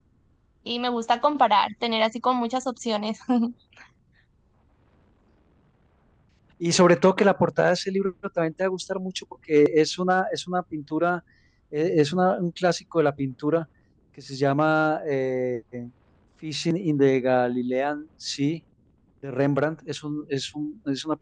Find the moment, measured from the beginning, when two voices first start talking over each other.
none

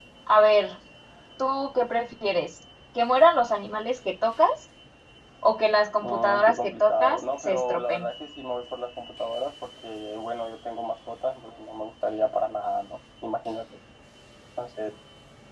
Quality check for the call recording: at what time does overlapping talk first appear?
6.0 s

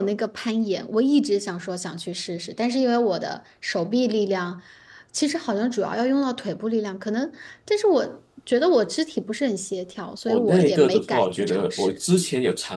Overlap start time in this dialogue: 10.3 s

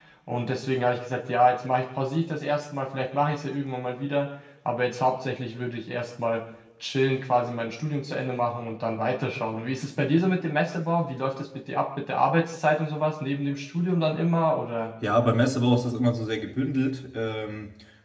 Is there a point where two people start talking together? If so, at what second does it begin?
none

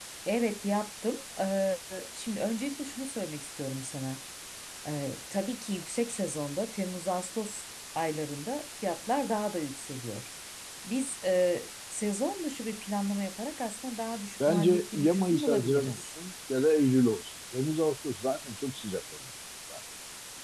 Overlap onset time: 14.4 s

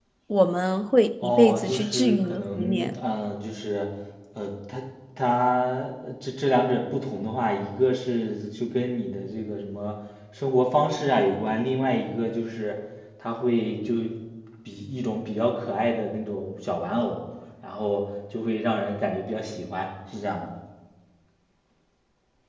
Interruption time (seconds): 1.2 s

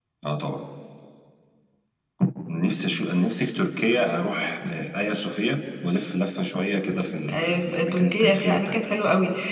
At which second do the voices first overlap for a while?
7.3 s

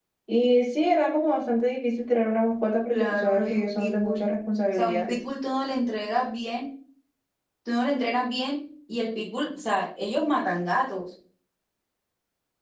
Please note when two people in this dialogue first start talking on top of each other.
2.9 s

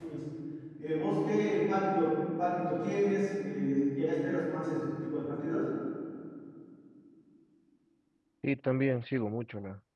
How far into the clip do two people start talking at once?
none

